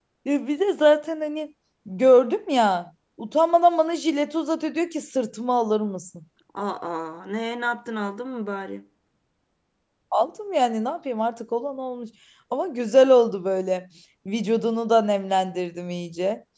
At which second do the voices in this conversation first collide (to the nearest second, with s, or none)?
none